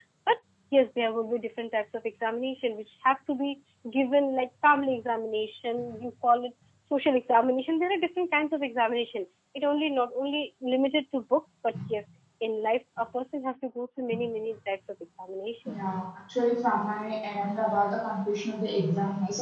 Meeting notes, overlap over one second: none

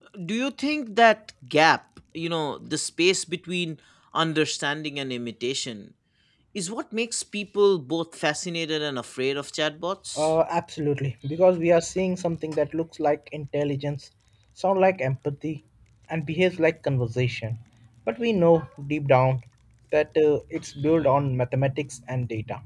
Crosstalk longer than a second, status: none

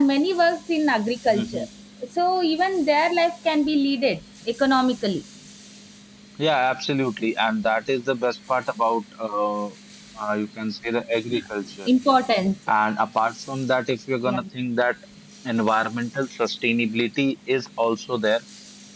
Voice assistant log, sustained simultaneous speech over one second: none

